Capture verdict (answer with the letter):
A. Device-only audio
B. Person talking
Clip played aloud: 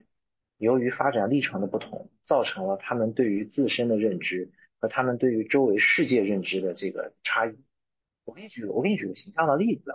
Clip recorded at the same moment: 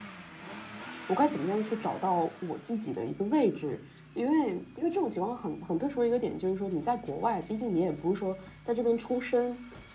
B